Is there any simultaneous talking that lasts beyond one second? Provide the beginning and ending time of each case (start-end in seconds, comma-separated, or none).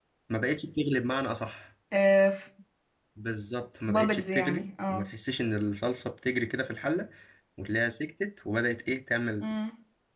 3.9-5.1